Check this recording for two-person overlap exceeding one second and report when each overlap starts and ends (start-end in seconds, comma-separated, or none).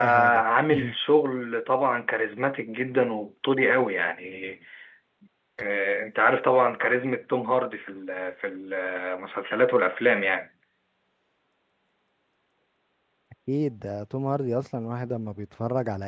none